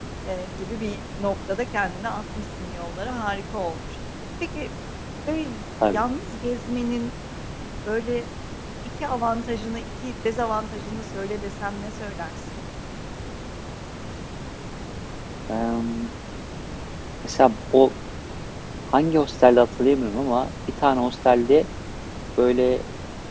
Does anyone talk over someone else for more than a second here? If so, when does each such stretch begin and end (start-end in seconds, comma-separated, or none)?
none